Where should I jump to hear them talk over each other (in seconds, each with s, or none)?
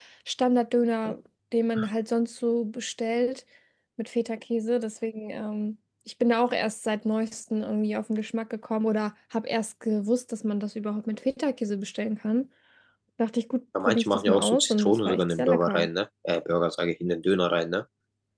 13.8 s